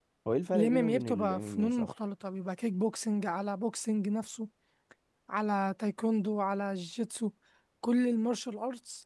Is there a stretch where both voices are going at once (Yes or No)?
Yes